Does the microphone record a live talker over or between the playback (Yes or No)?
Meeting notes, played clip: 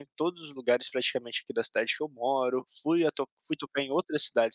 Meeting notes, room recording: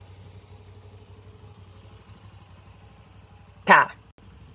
Yes